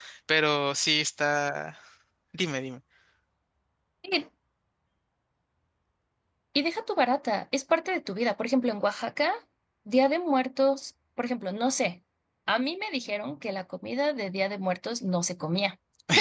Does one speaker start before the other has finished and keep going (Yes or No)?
No